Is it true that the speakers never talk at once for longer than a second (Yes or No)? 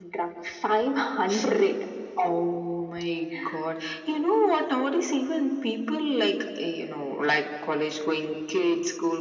Yes